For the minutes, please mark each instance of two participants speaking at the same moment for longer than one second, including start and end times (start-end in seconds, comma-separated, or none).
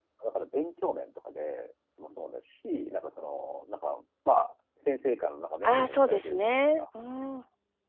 5.6-6.8